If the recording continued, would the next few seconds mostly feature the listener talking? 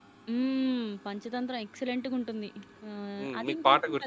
Yes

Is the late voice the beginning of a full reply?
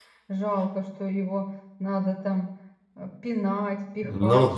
Yes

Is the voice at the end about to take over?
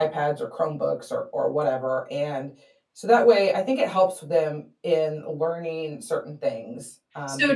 Yes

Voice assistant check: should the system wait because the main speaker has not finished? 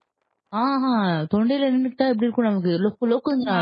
Yes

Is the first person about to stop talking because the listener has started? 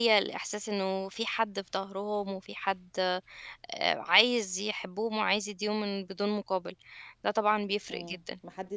Yes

